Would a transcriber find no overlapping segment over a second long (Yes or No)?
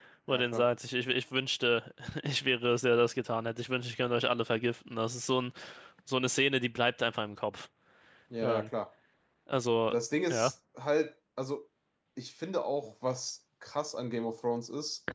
Yes